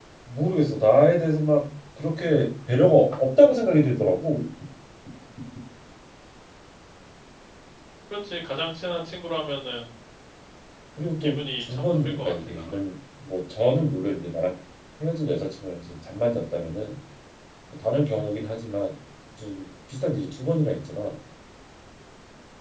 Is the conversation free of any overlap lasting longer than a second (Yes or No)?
No